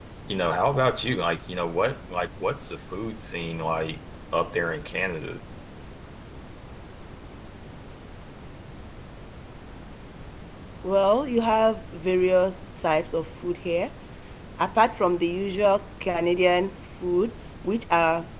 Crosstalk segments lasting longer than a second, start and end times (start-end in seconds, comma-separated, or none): none